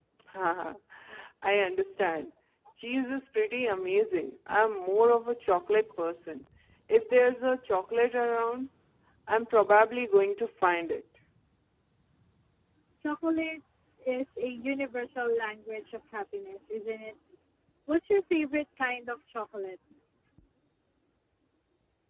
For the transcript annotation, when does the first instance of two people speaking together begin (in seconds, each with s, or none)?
none